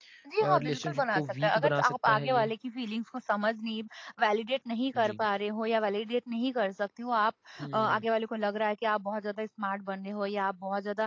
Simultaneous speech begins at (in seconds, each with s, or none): 0.6 s